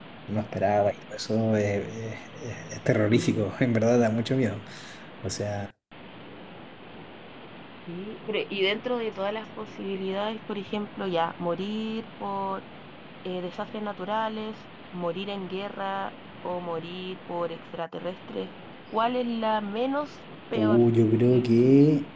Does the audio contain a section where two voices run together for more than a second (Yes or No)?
No